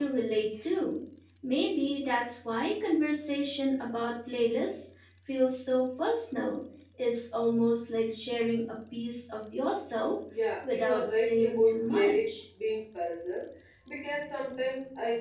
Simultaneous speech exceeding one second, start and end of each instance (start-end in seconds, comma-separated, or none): 10.6-12.4